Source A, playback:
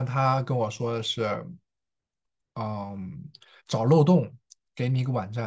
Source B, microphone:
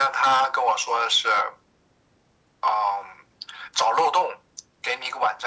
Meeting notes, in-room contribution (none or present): none